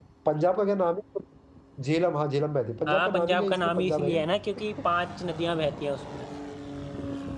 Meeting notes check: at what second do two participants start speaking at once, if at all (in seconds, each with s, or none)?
2.9 s